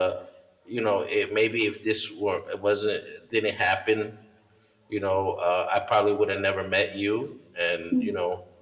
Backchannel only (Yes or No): Yes